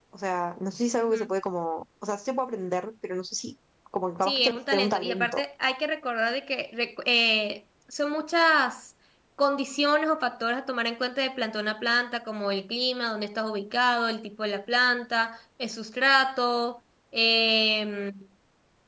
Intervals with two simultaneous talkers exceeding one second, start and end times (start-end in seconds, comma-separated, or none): 4.2-5.4